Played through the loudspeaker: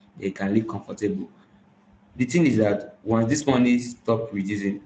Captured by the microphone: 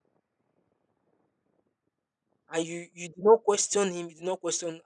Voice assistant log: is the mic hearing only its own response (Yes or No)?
No